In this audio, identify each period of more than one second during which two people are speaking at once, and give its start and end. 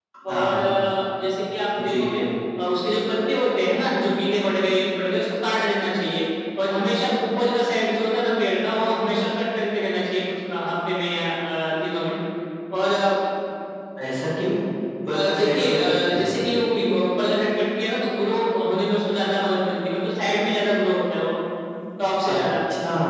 15.1-16.4

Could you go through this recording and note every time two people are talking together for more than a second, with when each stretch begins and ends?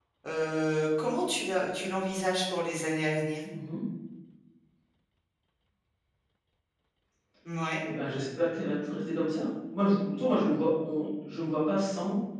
none

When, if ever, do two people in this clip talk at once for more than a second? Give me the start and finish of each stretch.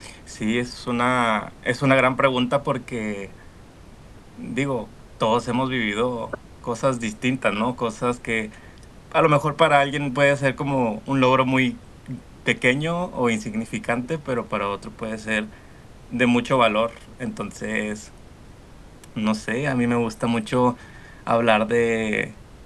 none

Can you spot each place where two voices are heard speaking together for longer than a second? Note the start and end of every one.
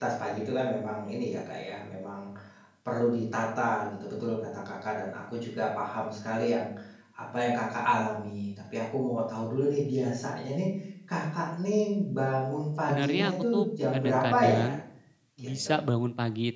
12.8-14.7

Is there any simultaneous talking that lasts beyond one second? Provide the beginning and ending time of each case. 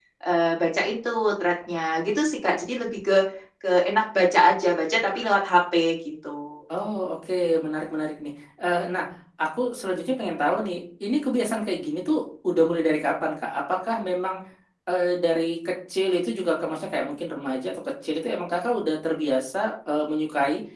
none

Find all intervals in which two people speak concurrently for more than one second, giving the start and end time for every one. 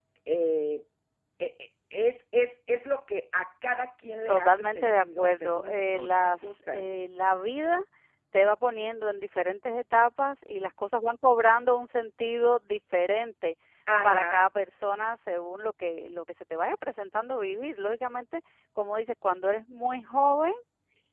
4.3-6.9

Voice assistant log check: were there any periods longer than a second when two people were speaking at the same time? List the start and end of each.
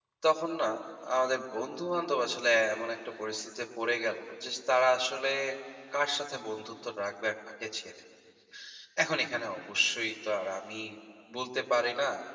none

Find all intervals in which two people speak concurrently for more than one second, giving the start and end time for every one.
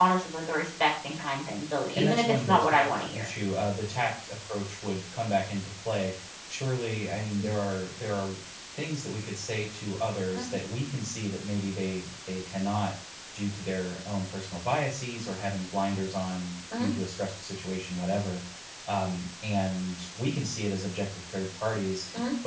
1.9-3.3

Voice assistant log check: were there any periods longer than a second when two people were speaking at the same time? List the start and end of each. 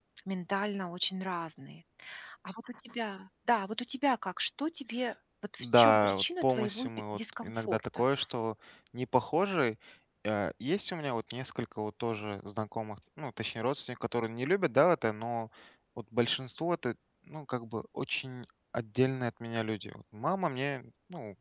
5.6-8.1

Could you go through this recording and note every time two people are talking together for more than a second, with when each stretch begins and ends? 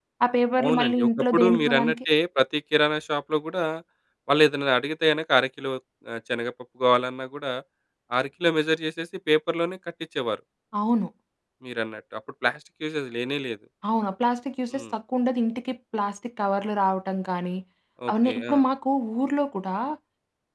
0.6-1.9

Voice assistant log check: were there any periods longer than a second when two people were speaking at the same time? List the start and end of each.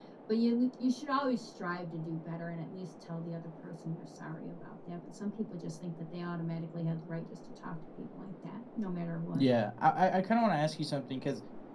none

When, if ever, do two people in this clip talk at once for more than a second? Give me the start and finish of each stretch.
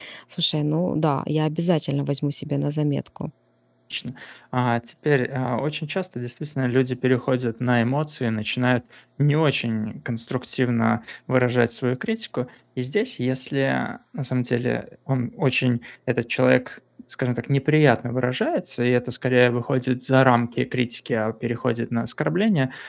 none

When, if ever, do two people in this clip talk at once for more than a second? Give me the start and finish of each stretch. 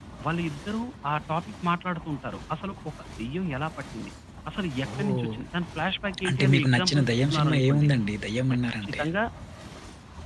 6.3-7.9

